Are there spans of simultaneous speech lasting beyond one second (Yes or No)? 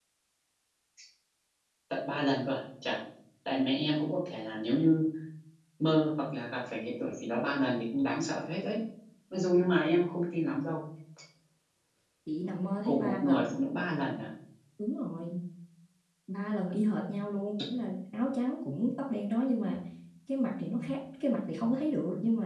No